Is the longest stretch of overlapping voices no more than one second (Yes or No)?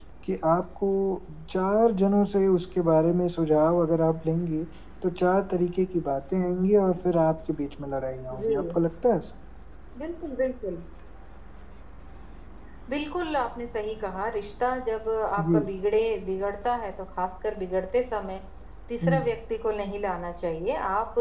Yes